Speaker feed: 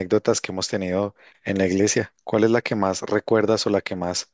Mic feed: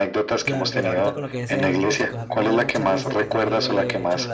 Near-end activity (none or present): present